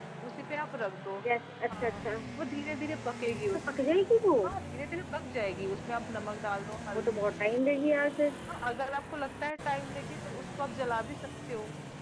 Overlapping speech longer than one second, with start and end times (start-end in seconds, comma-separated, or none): none